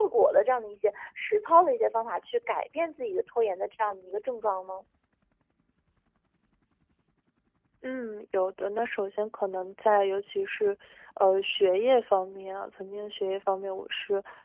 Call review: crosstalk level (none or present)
none